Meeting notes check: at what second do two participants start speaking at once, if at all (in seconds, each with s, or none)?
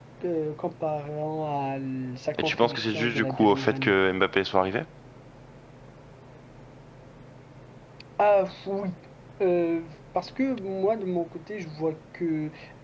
2.3 s